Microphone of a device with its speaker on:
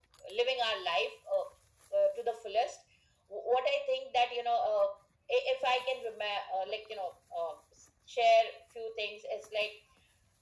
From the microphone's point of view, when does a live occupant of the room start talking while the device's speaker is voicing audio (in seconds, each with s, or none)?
none